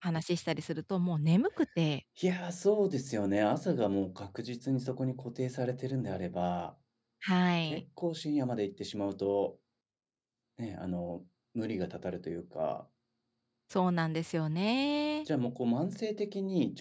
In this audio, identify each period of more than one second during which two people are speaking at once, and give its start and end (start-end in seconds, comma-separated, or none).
none